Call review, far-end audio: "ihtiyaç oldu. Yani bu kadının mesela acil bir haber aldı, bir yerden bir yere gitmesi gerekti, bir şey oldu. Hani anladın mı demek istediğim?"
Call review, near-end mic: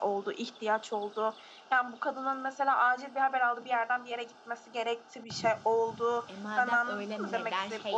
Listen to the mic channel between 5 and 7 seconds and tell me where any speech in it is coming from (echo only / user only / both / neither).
both